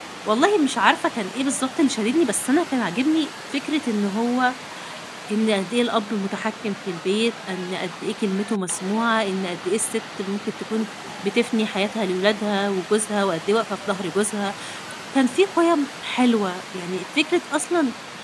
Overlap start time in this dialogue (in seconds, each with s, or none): none